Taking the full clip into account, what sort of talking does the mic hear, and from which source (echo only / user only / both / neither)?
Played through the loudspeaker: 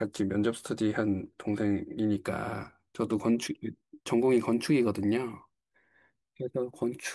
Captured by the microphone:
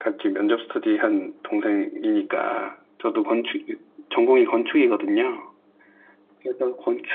echo only